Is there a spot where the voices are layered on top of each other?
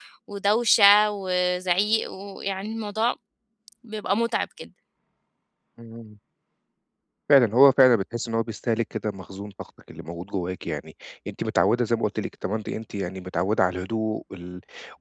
No

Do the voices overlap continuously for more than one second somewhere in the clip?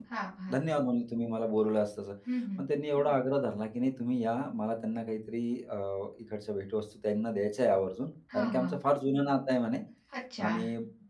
No

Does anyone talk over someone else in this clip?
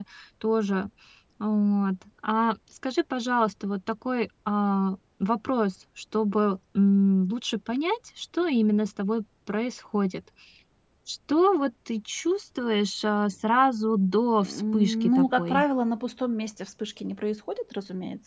Yes, from 14.4 s

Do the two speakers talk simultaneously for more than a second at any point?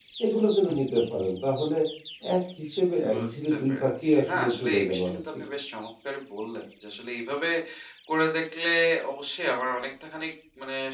Yes, from 3.1 s

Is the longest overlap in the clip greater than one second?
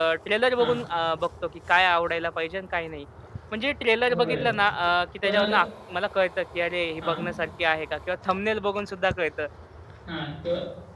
No

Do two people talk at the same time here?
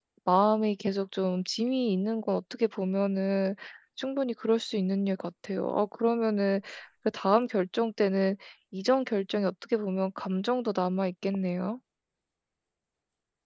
No

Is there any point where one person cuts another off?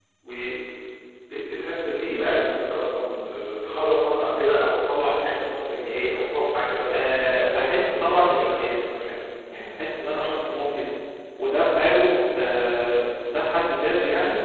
Yes, from 6.9 s

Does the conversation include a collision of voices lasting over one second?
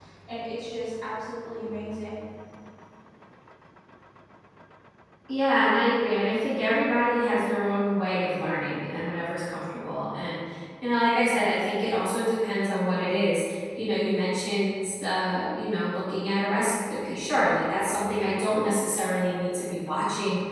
No

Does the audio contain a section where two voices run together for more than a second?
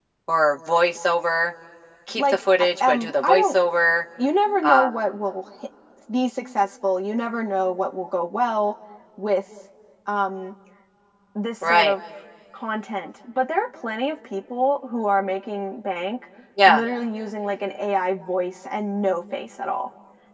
Yes, from 2.2 s

